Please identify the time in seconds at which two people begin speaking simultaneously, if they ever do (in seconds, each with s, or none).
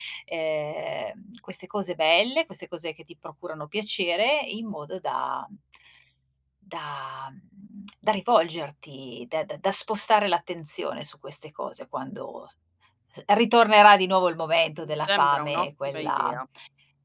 15.1 s